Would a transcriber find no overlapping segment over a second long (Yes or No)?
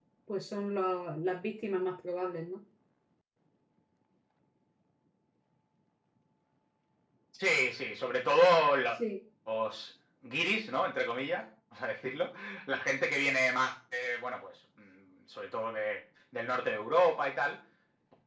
Yes